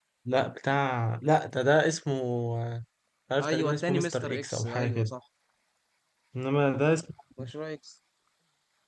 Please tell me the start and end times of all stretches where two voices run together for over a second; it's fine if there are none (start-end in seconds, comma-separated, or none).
3.4-5.1